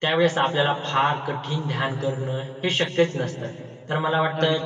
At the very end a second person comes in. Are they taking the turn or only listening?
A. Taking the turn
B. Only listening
B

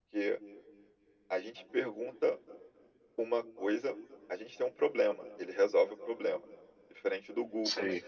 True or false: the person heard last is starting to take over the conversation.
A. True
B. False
B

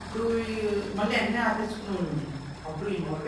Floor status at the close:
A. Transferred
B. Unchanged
A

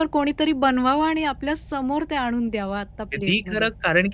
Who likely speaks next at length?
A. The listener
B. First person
A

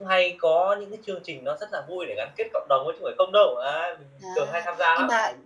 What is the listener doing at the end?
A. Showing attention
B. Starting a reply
B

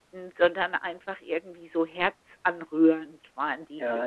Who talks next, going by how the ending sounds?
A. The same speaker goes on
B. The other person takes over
B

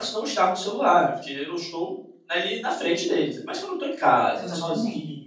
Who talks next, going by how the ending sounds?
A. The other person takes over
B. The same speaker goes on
B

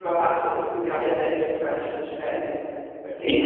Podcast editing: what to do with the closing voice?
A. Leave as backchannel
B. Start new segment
B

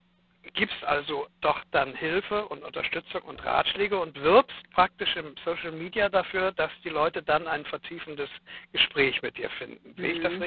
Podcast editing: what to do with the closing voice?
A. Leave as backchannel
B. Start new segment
B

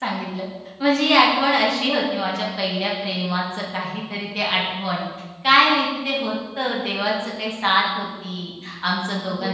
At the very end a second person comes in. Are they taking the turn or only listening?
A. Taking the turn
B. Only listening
B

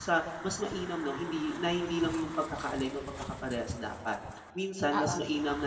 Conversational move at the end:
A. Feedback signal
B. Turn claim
A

